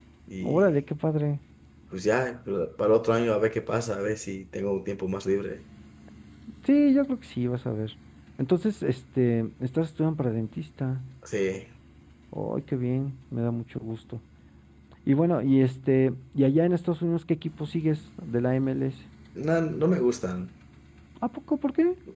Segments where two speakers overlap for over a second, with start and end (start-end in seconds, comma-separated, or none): none